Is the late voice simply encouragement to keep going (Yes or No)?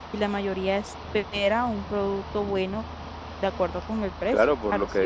No